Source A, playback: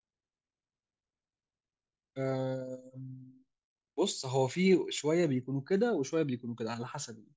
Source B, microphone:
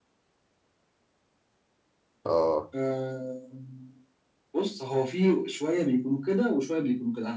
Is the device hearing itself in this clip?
Yes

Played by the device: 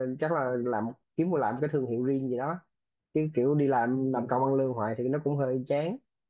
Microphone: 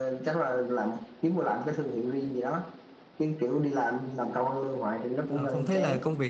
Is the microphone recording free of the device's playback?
No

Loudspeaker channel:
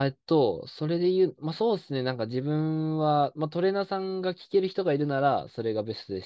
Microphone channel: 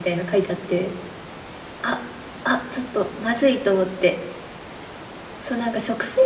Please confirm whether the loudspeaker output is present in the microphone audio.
No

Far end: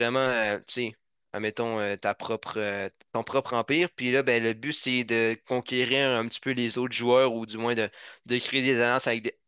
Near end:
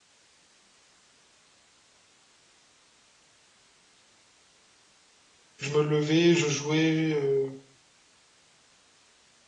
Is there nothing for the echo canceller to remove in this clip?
Yes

